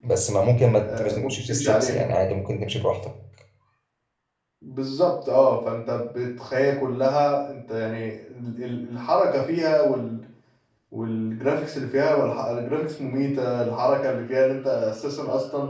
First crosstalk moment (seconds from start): 1 s

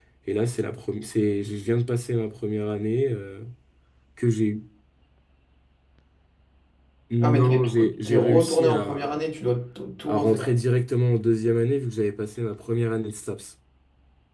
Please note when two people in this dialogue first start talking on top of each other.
7 s

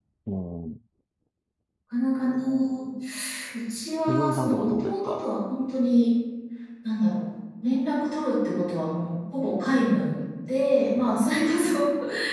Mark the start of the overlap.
4 s

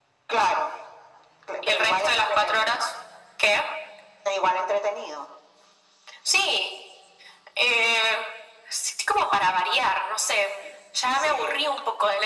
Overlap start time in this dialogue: 2 s

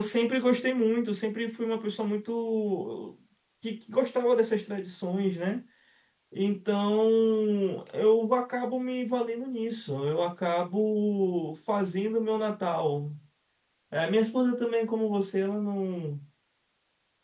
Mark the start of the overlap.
none

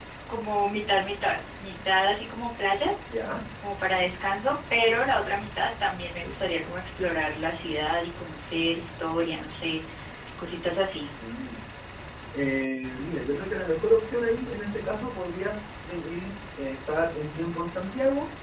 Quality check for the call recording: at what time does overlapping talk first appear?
none

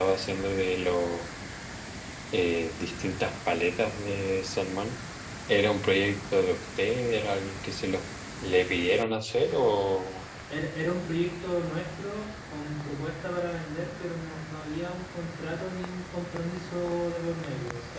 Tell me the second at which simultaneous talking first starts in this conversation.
none

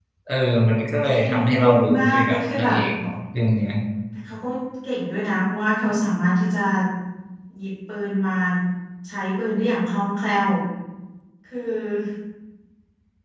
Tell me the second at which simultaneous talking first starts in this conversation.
1 s

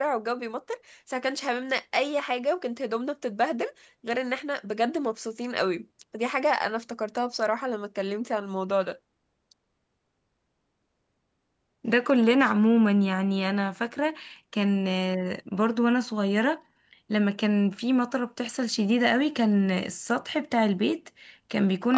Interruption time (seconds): none

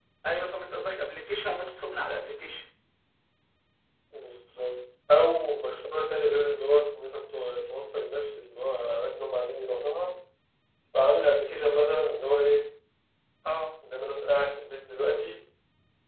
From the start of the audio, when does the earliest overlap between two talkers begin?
none

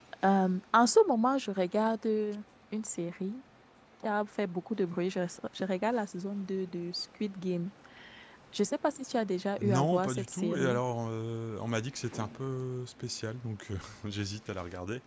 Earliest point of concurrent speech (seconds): 10 s

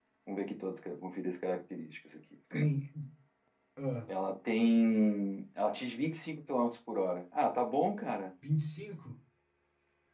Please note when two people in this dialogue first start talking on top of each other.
none

